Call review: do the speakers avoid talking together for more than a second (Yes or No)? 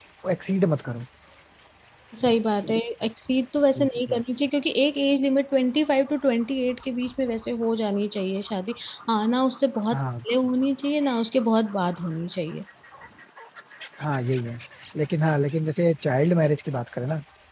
Yes